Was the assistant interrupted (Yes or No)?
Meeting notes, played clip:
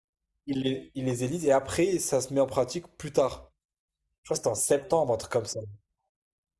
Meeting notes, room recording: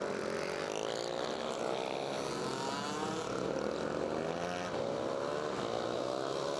No